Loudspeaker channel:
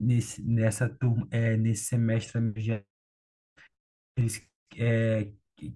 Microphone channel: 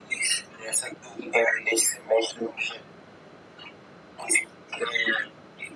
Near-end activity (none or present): none